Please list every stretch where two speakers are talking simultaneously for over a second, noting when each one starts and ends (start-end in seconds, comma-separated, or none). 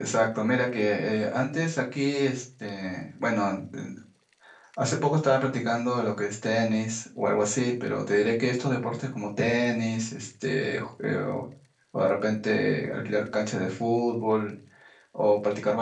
none